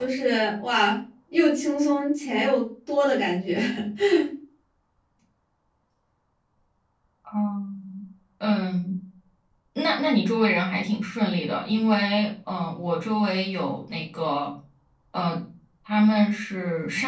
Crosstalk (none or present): none